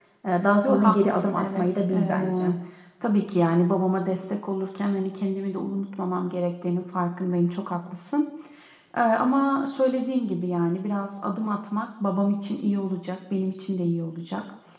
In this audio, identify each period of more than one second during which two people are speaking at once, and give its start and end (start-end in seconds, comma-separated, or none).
0.6-2.5